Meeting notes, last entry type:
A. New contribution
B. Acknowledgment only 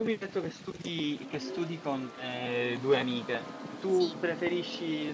B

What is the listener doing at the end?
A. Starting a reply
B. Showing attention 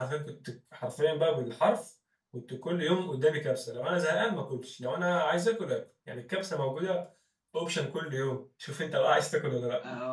A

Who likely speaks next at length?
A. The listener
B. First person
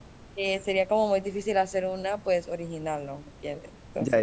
A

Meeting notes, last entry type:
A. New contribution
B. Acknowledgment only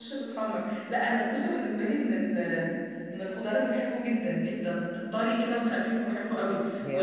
B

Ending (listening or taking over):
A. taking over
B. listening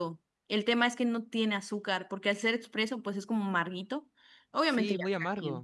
A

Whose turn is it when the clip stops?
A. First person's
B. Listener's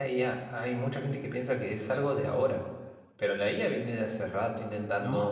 A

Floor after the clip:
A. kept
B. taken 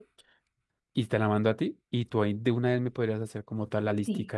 B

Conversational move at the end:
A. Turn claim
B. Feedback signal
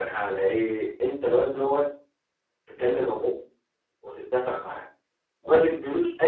B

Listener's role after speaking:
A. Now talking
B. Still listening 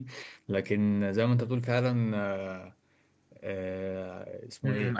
A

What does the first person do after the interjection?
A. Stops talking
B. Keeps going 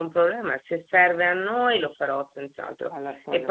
B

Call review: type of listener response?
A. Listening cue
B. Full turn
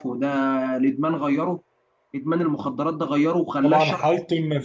B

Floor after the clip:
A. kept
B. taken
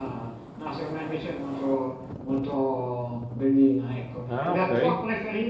A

